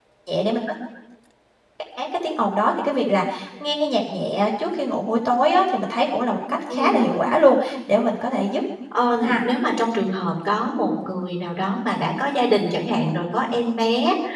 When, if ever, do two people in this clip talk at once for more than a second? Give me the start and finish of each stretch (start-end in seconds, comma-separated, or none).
none